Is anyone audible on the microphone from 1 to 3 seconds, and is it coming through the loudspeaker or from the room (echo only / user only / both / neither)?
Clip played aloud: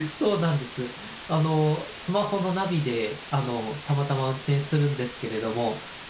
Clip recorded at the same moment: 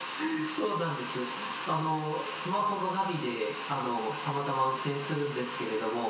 echo only